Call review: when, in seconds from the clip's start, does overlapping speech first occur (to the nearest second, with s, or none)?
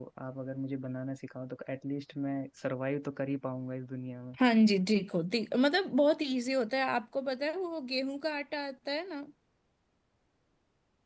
none